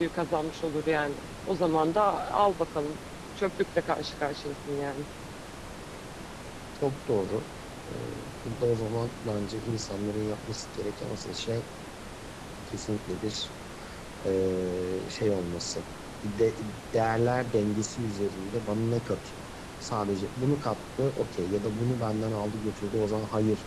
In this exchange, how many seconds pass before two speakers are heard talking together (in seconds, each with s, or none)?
none